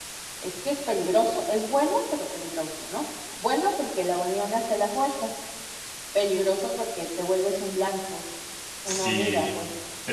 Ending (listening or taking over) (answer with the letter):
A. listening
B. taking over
B